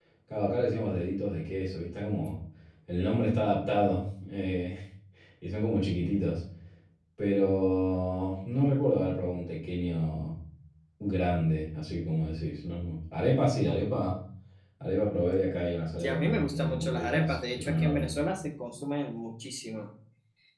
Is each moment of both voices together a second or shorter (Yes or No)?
No